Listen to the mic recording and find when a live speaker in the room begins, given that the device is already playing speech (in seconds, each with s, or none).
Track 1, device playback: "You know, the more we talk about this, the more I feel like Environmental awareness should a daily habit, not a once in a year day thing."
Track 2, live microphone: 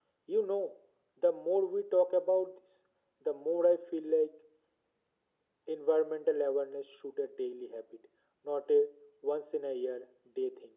none